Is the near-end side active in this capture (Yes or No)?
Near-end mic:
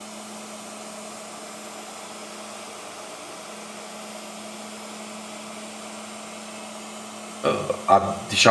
Yes